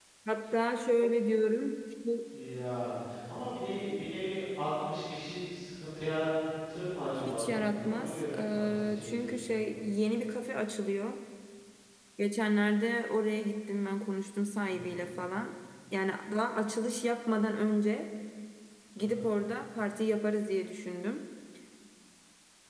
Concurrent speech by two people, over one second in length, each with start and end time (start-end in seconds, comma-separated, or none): 7.3-9.6